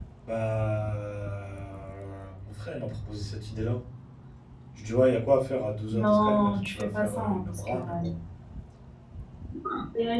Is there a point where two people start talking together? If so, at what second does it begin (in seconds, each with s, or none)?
5.9 s